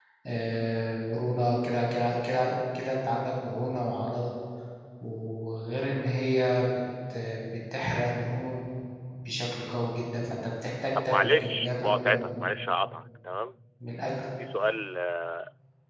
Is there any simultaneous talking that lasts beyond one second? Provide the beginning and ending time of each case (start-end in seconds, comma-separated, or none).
11.0-12.5